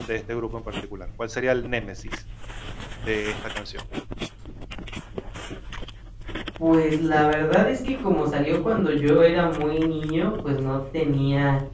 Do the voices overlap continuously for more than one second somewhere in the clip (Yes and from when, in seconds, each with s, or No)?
No